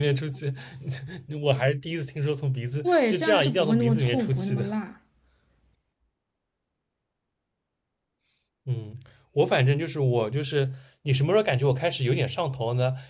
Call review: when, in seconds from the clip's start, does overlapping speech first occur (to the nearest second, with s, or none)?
3 s